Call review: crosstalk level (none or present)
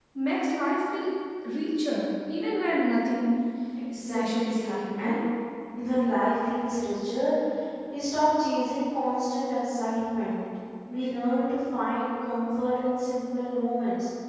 present